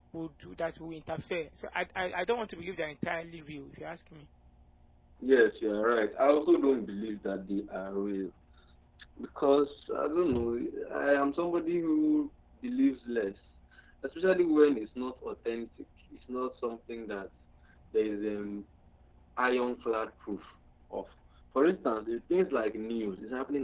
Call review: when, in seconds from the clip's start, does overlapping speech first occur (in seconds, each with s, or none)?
none